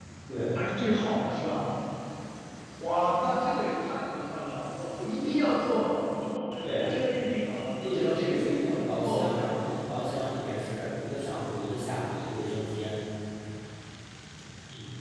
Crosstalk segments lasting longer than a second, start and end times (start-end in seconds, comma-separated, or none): 7.8-9.6